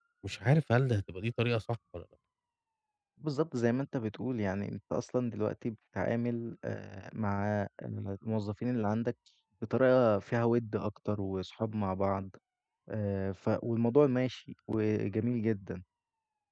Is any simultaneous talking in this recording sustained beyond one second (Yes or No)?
No